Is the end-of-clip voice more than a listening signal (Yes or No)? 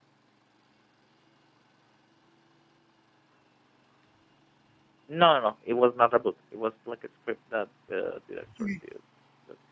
No